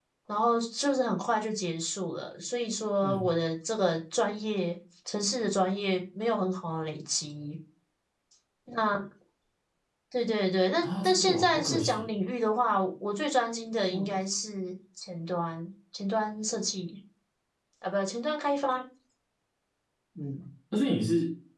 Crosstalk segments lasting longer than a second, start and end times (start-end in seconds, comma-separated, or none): 10.8-12.1